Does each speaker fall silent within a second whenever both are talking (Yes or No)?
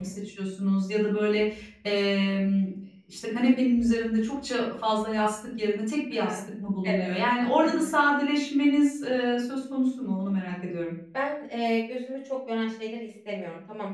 Yes